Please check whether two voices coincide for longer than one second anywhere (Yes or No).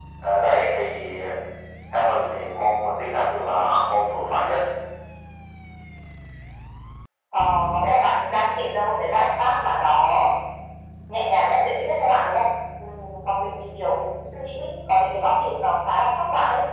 No